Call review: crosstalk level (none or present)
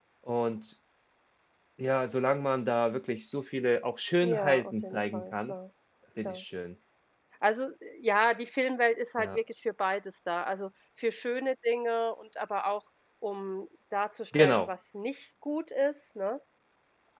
present